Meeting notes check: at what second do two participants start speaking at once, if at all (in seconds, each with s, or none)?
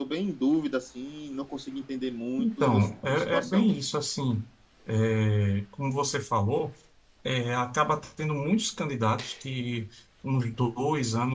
2.4 s